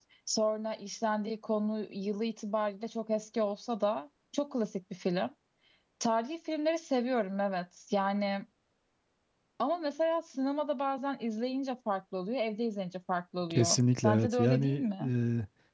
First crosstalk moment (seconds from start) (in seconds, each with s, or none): 13.5 s